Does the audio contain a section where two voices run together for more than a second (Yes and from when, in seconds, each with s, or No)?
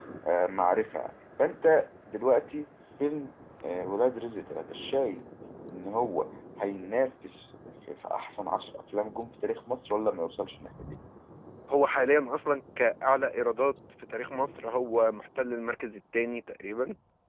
No